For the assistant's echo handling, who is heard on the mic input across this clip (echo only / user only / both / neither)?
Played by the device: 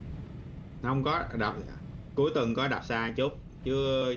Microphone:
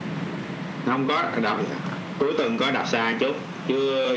echo only